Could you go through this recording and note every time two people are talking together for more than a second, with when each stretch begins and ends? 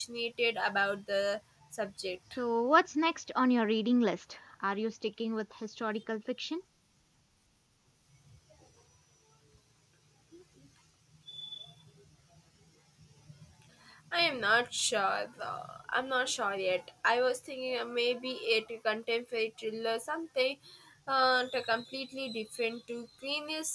none

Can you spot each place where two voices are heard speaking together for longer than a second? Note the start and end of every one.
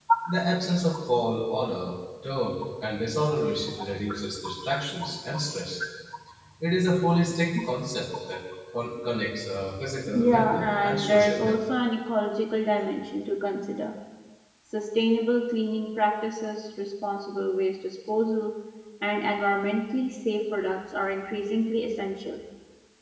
10.1-11.6

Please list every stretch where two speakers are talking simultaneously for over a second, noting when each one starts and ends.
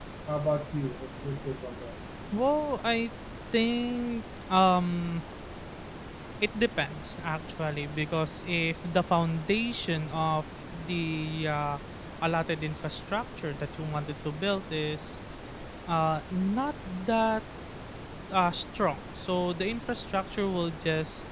none

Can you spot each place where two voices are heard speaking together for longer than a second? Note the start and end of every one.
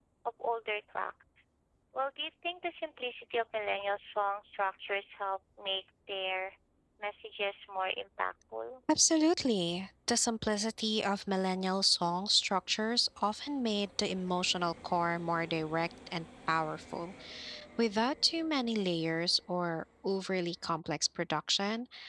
none

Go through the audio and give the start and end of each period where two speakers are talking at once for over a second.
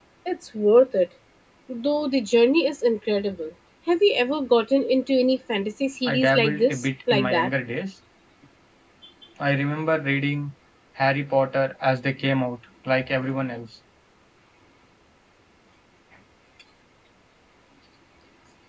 6.0-7.5

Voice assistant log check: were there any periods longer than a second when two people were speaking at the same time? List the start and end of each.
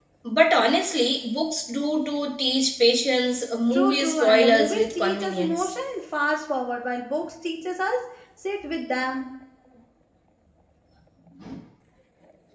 3.7-5.7

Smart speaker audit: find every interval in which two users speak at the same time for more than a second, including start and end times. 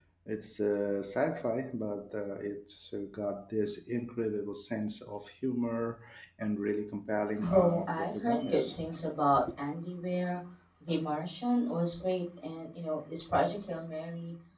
7.4-8.8

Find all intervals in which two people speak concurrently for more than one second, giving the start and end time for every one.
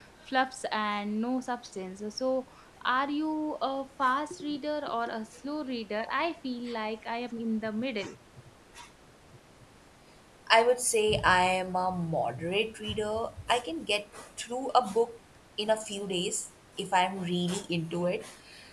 none

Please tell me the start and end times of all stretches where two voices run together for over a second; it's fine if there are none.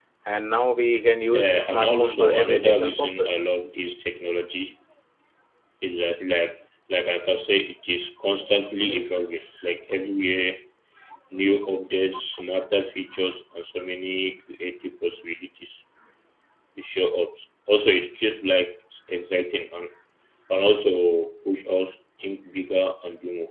1.3-3.5

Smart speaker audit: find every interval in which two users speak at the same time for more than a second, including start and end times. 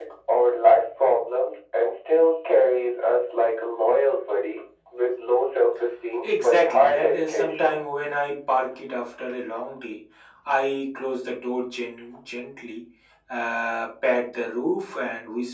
6.2-7.8

